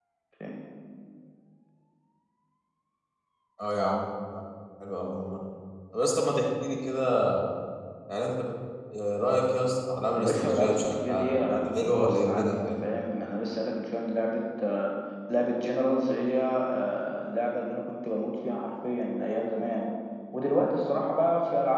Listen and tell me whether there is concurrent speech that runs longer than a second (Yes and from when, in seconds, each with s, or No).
Yes, from 10.2 s